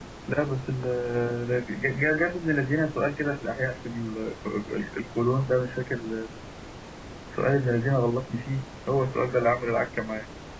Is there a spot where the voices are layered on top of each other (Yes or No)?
No